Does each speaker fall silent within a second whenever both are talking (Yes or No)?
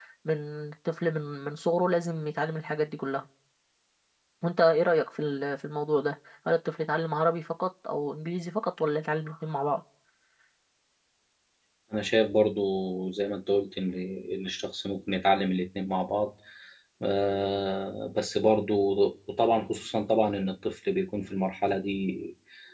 Yes